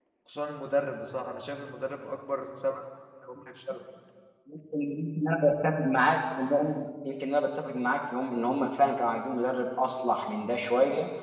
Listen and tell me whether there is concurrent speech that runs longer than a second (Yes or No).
No